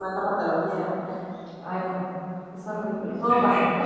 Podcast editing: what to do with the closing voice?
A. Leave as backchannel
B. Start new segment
A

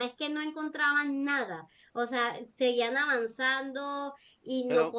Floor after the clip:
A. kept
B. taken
A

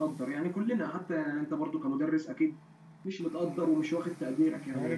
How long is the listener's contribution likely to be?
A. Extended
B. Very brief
A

